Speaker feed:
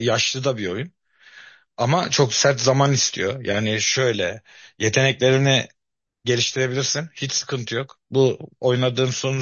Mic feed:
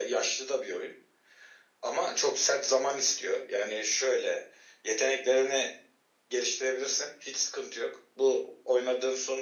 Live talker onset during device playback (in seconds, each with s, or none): none